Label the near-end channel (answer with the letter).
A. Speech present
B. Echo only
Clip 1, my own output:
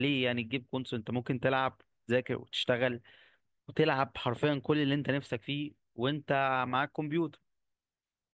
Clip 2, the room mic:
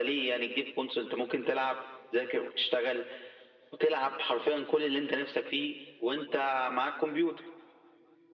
B